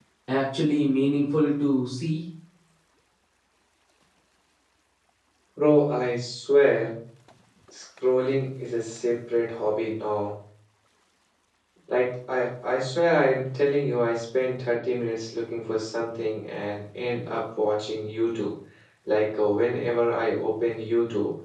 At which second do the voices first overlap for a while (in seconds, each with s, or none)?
none